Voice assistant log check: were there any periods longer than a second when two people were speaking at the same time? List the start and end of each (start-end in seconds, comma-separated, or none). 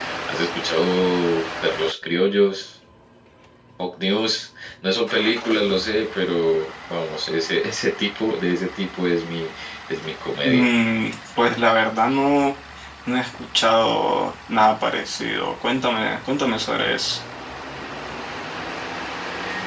none